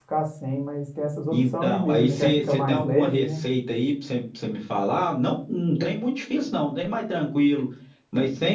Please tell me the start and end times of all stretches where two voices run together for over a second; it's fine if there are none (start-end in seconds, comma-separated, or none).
1.3-3.4